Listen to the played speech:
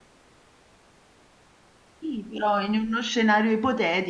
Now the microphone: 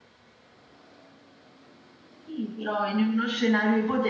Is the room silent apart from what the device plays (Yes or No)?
Yes